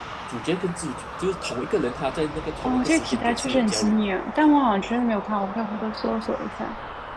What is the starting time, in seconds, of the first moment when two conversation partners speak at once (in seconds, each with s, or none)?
2.6 s